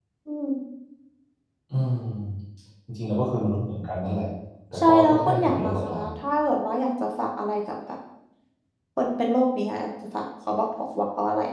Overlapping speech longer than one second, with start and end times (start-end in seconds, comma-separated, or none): 4.8-6.1